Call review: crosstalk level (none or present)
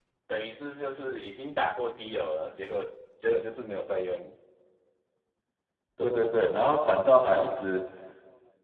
none